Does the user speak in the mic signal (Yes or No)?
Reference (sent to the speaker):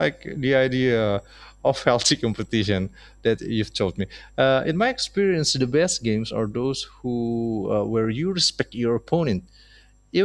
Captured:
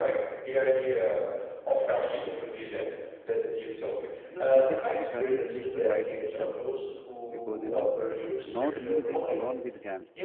Yes